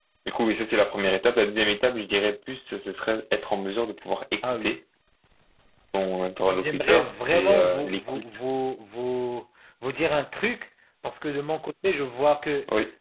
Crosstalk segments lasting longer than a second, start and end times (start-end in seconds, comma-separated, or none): 6.5-8.2